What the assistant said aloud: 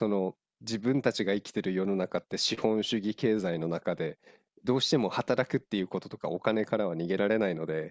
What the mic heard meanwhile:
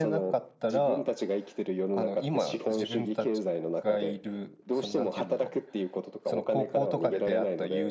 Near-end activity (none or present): present